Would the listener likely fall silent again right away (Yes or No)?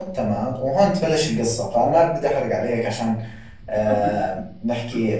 Yes